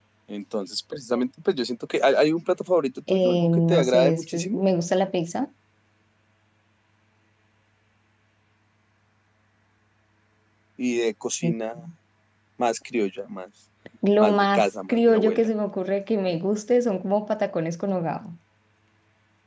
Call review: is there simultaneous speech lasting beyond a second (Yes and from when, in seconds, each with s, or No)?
Yes, from 3.1 s